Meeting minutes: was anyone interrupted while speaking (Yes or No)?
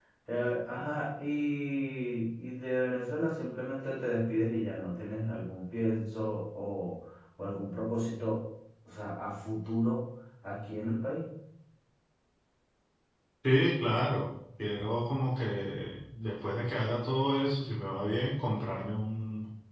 No